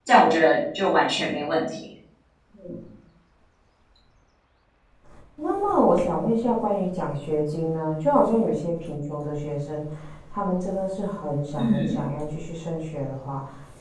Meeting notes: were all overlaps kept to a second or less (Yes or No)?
Yes